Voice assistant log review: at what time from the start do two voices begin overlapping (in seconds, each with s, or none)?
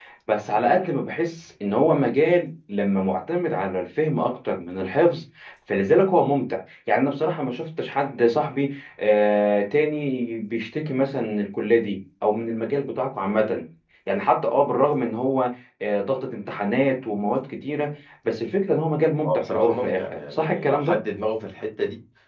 19.2 s